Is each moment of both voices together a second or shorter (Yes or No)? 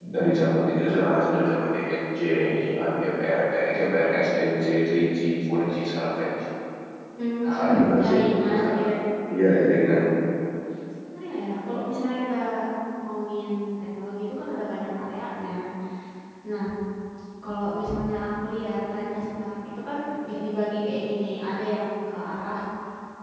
No